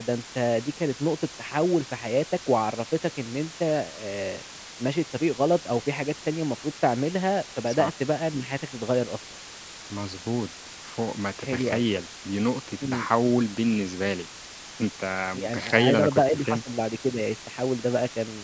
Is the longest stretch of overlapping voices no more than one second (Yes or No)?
No